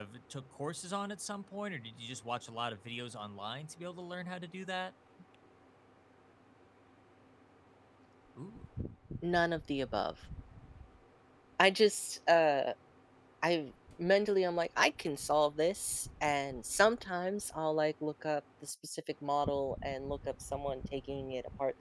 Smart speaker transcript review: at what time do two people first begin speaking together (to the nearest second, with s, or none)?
none